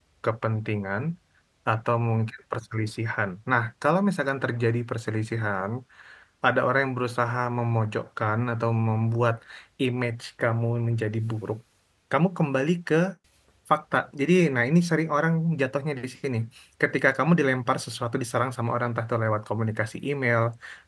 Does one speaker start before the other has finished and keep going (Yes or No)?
No